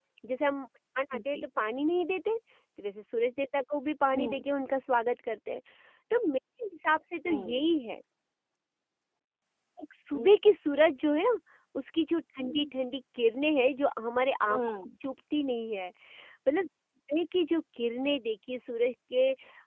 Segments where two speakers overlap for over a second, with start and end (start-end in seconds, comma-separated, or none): none